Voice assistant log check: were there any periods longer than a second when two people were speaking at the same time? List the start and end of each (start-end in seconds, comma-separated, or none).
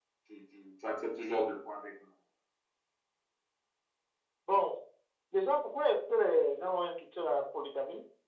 none